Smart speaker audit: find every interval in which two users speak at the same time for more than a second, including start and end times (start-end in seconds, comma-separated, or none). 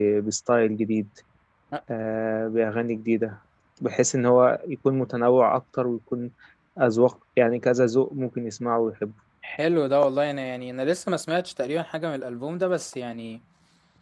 none